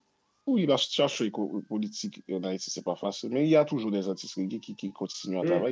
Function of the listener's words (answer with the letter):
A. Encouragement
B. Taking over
B